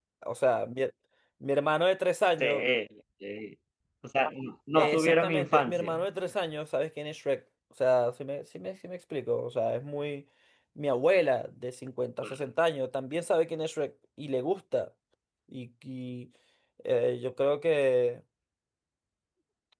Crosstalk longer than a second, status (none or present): present